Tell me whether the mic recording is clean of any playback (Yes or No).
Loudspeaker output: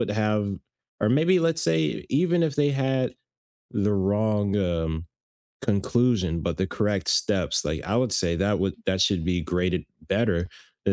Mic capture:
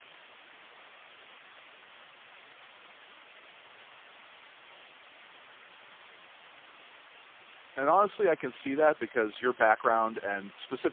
Yes